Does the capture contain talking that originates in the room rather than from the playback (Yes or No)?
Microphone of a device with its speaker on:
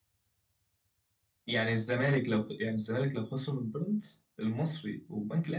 Yes